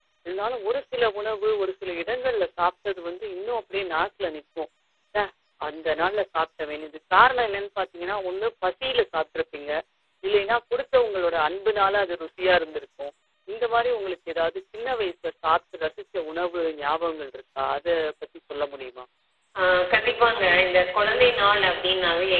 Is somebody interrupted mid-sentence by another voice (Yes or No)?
No